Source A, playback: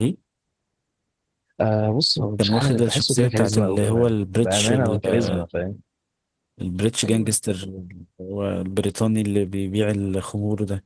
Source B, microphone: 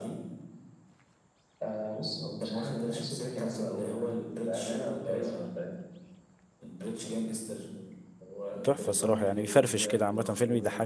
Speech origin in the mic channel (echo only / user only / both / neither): both